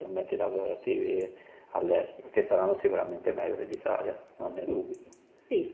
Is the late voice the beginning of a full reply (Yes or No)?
Yes